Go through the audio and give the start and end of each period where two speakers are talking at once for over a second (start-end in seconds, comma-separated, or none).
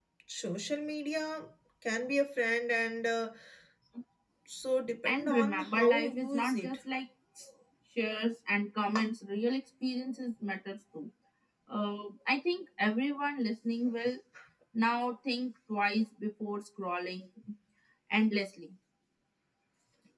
5.0-6.8